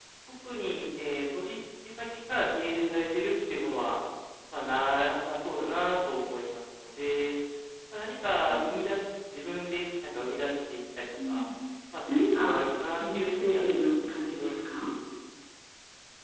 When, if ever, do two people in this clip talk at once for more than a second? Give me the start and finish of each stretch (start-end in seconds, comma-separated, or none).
13.0-14.5